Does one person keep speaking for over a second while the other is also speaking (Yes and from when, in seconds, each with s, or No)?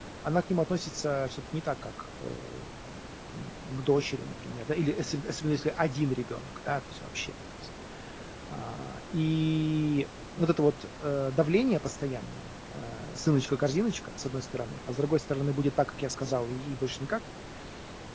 No